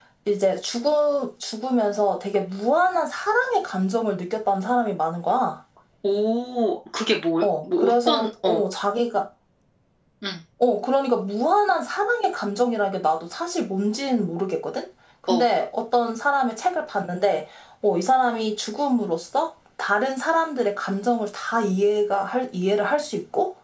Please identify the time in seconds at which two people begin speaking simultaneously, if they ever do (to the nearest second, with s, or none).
7 s